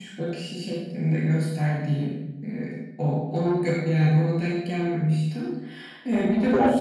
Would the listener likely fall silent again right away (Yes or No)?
Yes